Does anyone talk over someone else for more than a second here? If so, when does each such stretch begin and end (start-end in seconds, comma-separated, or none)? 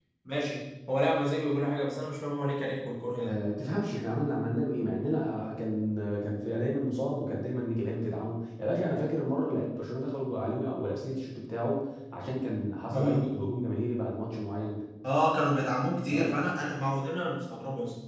none